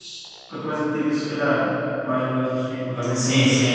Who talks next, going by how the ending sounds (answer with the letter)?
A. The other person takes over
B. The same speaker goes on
A